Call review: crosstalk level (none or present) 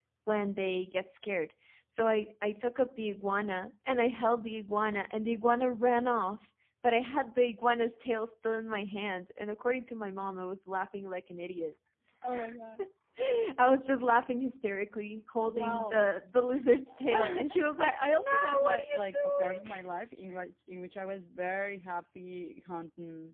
present